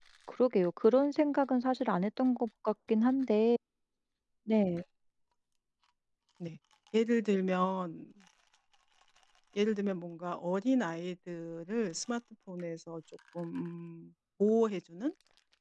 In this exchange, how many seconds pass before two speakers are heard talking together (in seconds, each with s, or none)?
none